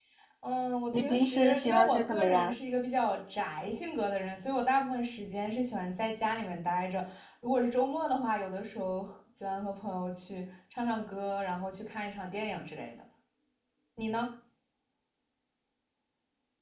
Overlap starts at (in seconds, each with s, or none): 0.9 s